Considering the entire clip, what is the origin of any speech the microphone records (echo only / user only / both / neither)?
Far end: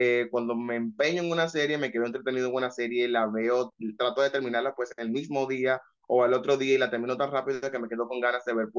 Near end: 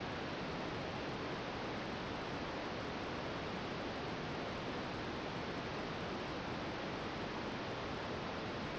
neither